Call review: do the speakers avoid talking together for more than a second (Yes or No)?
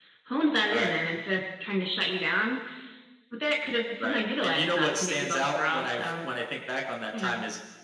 No